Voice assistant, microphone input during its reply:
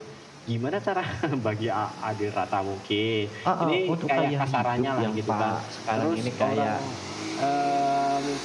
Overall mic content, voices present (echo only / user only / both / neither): both